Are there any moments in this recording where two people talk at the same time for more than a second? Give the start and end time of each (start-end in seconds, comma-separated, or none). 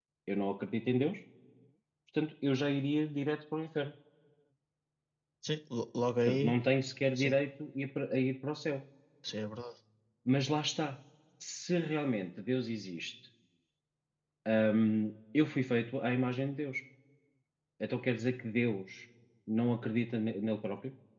none